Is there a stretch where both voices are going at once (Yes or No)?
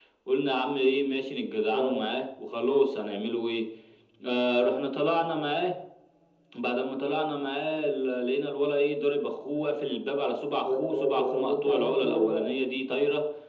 Yes